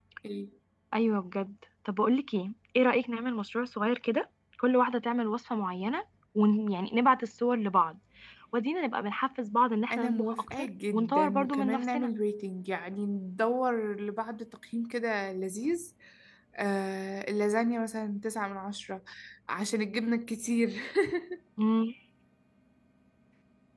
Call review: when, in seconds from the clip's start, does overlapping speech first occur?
9.9 s

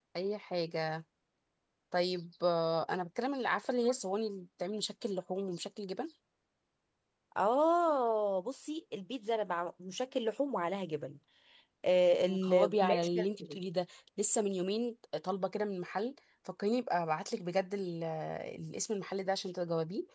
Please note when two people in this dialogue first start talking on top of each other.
12.3 s

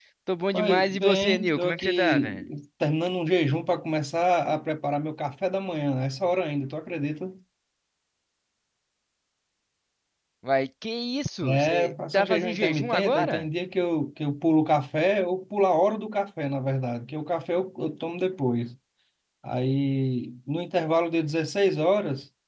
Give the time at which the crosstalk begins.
0.5 s

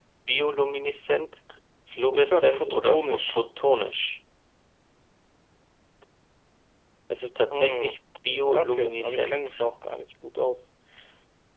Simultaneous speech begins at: 2.1 s

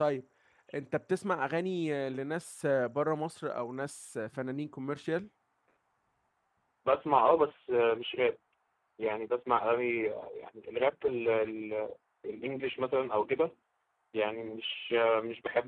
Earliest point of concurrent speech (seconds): none

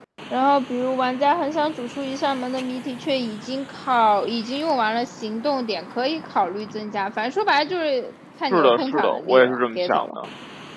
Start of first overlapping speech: 8.5 s

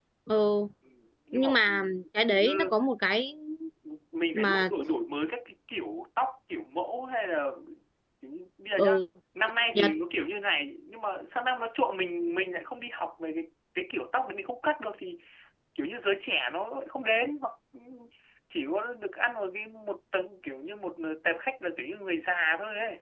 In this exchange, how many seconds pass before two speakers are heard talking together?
1.3 s

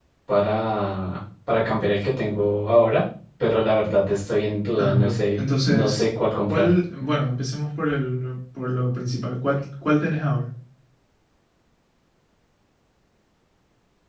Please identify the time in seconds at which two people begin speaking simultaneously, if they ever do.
4.8 s

